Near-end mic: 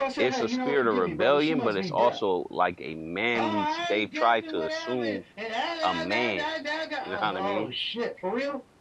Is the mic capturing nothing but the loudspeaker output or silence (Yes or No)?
No